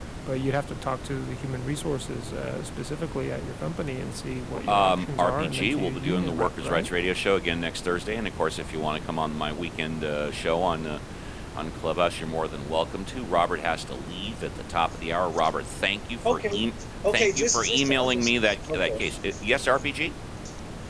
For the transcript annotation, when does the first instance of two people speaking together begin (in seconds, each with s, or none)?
4.7 s